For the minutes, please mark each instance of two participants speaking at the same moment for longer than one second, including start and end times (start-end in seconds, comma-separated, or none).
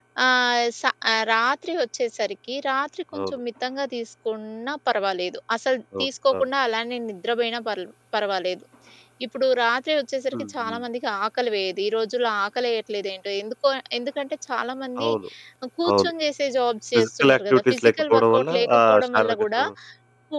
16.9-19.6